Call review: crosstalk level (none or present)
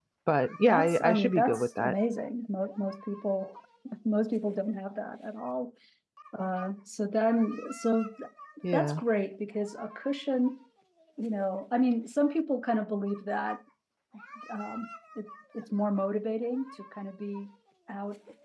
present